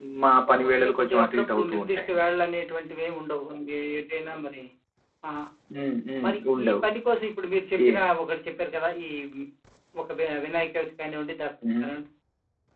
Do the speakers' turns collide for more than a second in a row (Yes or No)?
Yes